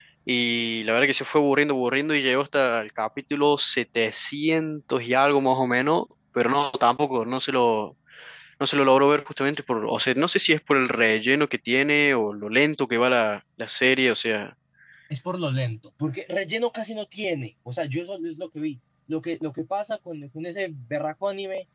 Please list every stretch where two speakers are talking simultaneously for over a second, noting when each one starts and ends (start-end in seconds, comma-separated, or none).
none